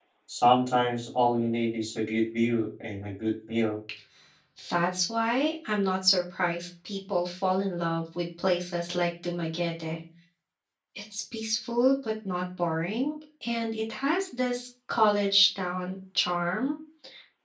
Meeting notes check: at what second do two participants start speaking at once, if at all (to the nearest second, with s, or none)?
none